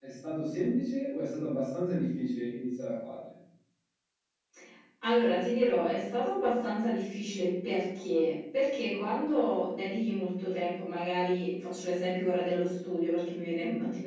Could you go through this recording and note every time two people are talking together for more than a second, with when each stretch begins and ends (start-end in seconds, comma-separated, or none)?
none